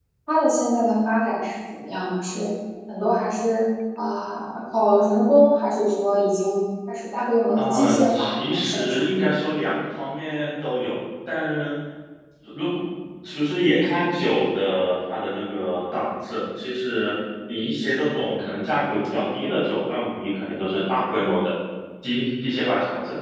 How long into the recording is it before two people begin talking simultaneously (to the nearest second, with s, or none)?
8 s